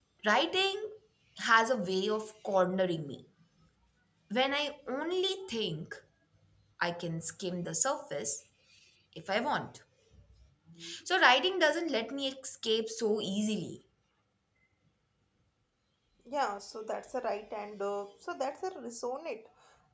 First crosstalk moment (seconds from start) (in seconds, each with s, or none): none